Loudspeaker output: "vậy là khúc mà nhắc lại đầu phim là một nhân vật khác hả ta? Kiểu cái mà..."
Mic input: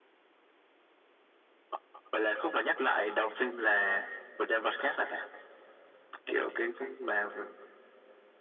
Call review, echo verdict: present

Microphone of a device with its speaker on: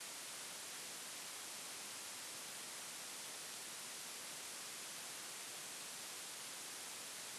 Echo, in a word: none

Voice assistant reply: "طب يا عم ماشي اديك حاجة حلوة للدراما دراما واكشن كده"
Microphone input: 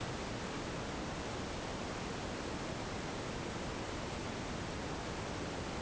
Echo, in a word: none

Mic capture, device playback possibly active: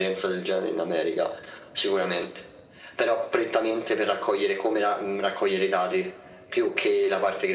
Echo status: present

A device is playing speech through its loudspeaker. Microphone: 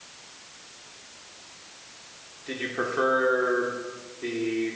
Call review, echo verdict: none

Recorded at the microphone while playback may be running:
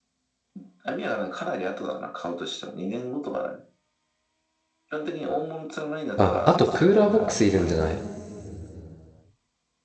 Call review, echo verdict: present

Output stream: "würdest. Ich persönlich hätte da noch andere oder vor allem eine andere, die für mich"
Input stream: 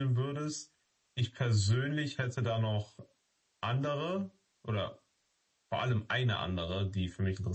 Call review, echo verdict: present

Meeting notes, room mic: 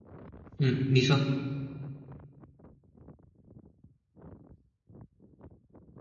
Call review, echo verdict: none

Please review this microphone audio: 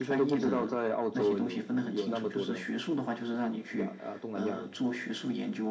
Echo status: present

